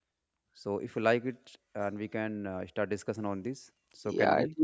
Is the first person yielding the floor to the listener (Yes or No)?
Yes